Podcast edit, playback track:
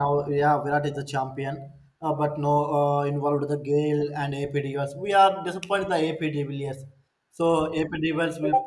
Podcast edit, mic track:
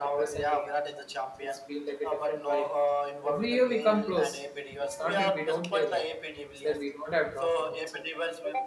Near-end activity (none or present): present